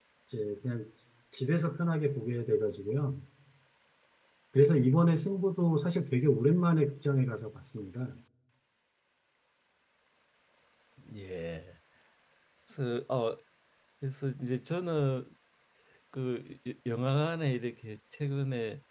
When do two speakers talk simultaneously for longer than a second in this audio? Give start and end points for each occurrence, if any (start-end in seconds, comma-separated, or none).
none